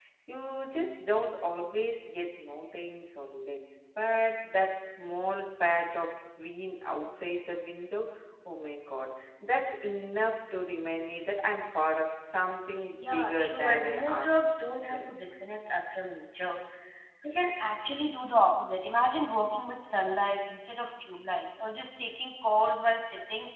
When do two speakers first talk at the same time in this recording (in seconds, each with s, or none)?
12.9 s